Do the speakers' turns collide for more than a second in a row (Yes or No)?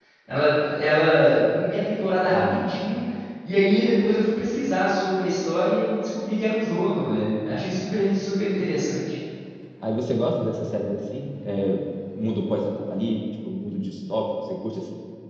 No